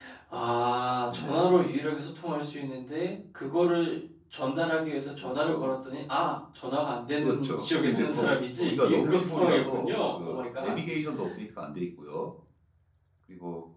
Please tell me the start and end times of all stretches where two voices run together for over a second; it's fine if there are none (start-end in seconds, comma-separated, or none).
7.2-10.8